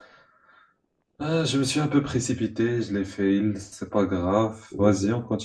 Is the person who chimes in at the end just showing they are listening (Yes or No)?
Yes